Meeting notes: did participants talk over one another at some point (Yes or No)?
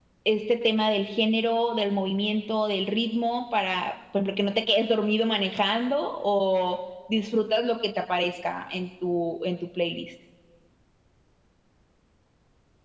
No